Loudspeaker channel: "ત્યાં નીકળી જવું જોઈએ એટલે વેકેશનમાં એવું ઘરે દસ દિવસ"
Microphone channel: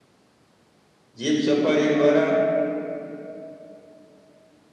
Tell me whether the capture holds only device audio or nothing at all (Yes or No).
No